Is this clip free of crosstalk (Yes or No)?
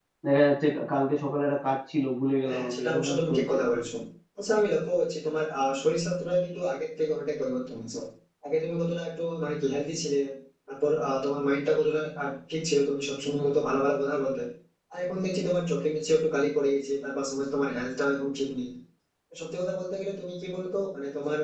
No